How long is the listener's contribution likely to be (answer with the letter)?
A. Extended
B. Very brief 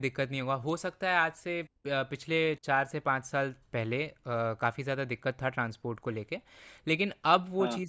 B